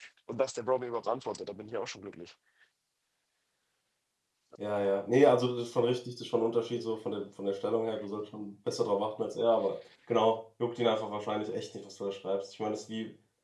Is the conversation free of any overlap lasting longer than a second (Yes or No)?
Yes